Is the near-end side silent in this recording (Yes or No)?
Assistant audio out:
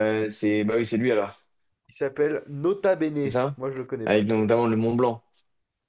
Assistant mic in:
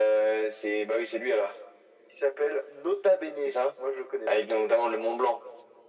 Yes